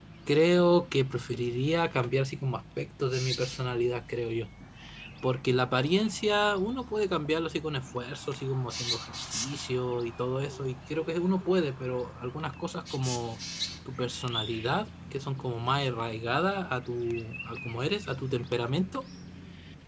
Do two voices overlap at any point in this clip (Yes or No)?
No